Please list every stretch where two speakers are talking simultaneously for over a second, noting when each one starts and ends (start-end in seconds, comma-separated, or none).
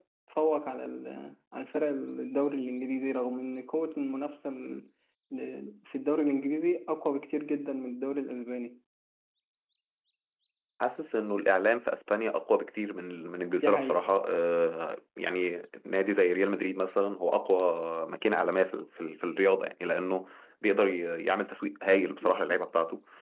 none